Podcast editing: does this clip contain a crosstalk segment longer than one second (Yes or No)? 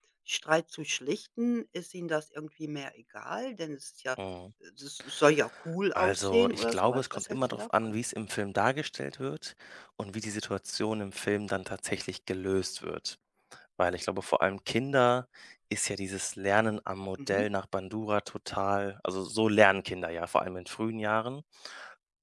Yes